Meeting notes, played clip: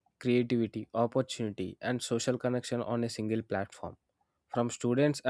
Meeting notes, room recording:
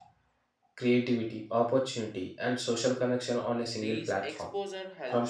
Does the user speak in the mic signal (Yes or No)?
Yes